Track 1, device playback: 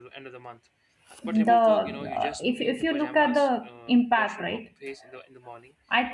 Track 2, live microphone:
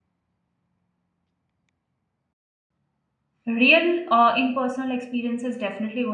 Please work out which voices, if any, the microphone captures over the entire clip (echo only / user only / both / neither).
user only